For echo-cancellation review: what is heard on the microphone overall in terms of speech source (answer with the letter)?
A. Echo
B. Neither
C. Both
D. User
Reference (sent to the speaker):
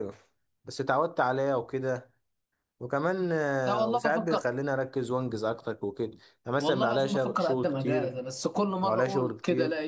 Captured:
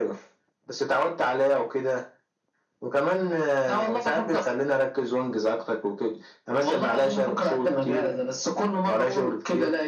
A